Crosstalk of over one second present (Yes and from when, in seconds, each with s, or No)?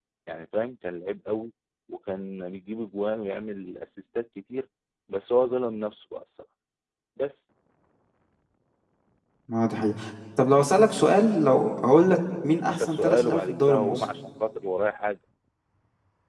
Yes, from 12.7 s